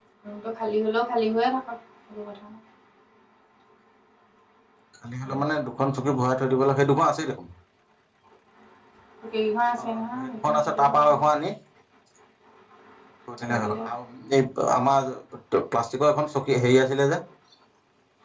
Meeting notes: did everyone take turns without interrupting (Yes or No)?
No